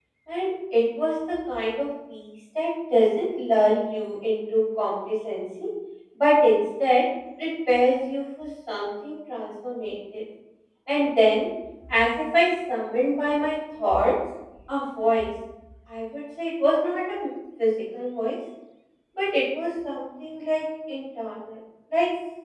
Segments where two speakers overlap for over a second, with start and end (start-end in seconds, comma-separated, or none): none